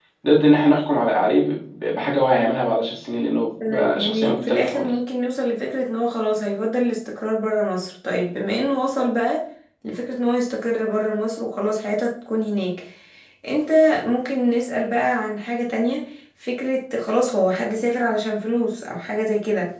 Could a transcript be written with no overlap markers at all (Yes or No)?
No